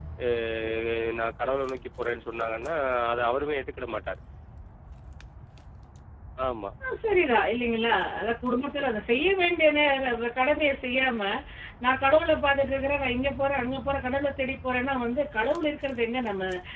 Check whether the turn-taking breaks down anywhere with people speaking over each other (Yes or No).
No